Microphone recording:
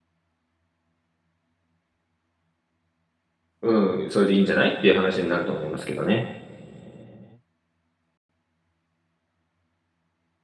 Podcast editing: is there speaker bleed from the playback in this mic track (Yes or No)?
No